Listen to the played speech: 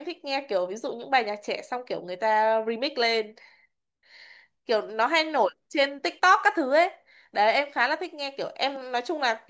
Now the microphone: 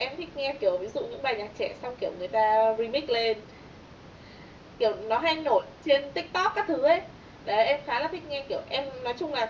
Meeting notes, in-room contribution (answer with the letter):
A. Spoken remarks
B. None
B